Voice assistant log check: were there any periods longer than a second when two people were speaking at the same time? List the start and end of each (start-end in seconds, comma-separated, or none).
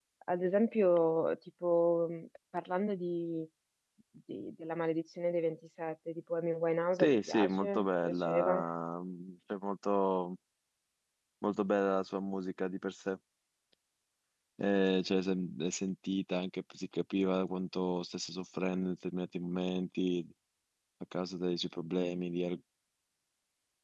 7.0-8.6